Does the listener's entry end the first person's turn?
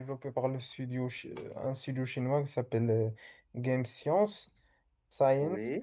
No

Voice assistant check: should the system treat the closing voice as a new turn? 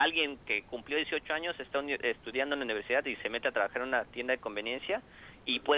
No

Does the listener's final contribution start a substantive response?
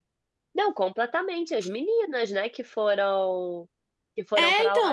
No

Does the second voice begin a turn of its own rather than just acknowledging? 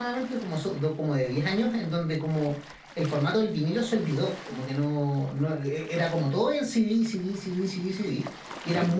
No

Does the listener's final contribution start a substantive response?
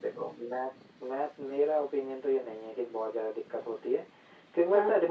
No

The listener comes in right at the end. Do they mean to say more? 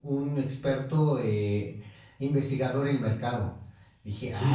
Yes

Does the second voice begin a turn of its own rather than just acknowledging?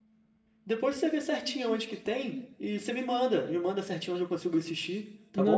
Yes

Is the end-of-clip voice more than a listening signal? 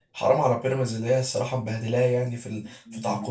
Yes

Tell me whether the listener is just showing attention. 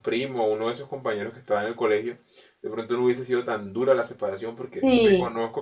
Yes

